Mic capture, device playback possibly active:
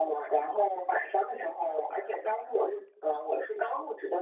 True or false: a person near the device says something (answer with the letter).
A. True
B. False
B